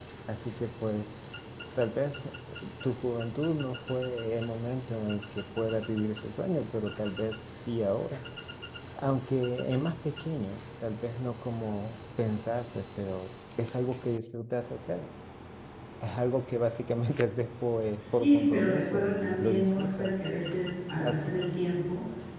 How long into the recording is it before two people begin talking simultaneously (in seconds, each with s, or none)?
18.0 s